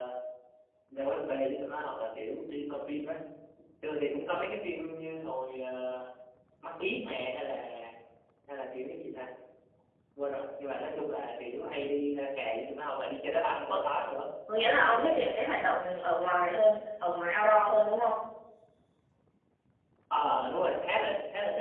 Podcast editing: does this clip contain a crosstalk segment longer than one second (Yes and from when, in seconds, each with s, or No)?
No